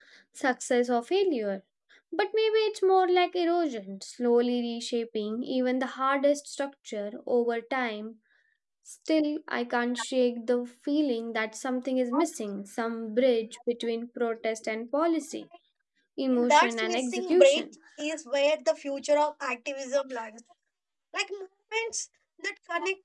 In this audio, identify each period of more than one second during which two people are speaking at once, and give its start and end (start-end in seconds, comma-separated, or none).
16.3-17.6